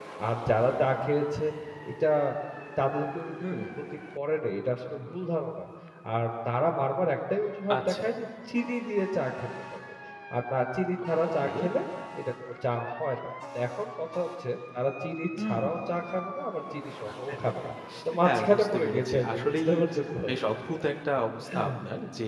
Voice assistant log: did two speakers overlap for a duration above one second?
Yes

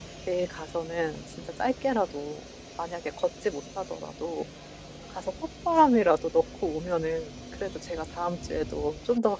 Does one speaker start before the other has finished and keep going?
No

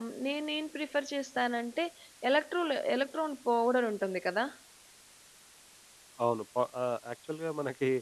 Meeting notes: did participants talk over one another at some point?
No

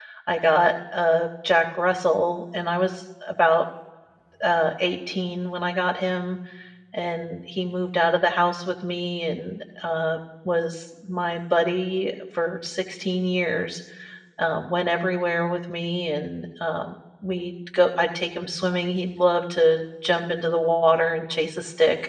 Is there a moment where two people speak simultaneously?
No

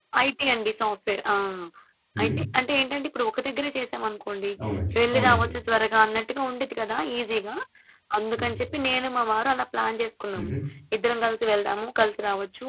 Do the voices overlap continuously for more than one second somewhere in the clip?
No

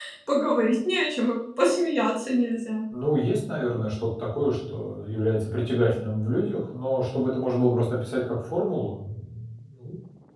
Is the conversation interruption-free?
Yes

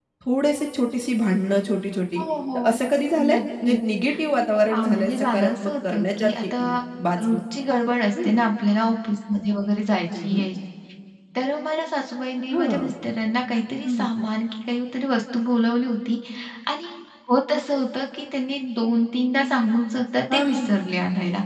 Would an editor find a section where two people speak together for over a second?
Yes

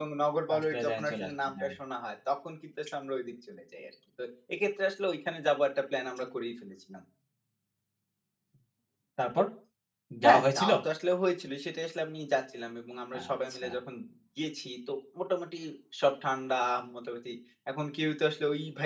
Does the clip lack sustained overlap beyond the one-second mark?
No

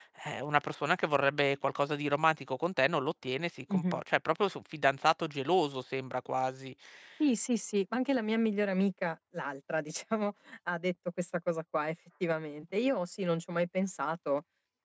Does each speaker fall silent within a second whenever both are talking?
Yes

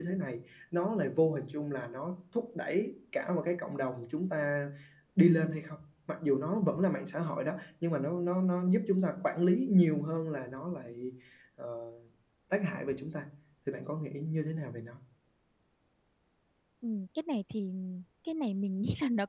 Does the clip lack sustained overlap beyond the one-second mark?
Yes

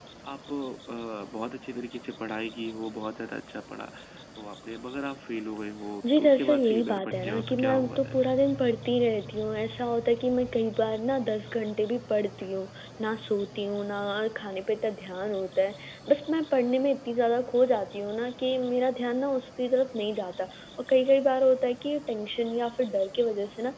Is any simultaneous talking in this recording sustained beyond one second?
Yes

